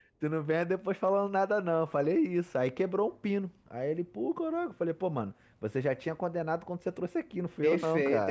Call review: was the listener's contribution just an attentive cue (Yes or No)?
No